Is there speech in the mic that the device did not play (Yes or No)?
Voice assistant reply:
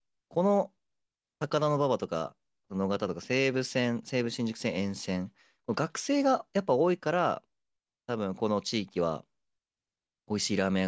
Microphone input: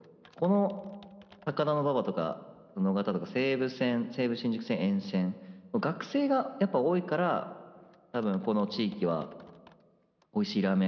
No